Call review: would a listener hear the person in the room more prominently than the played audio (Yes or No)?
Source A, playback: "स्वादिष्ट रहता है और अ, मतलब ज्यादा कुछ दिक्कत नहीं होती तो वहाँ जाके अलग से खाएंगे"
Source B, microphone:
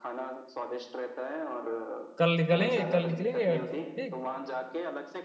Yes